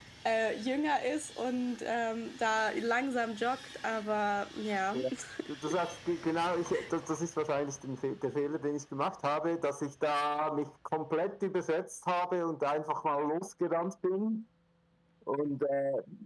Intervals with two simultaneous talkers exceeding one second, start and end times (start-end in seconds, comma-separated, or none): none